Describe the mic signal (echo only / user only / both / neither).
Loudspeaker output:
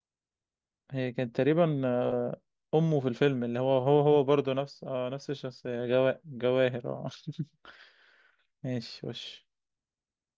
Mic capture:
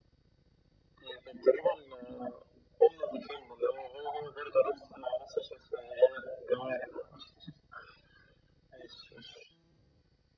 echo only